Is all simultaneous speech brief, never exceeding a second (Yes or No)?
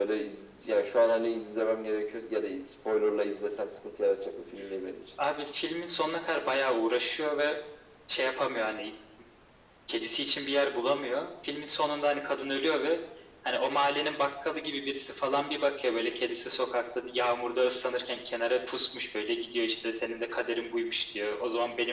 Yes